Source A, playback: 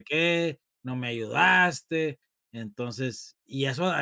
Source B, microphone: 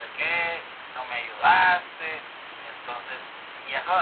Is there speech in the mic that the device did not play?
No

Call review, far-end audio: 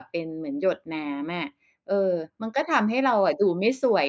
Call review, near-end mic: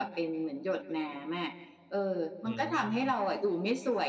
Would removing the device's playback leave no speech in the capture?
No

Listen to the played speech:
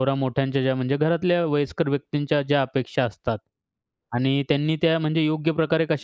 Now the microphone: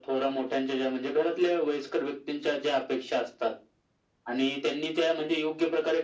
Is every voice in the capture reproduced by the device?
Yes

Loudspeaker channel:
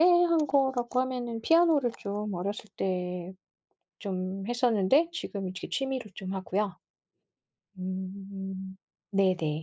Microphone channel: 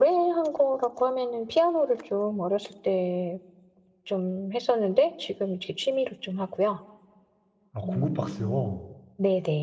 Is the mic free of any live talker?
No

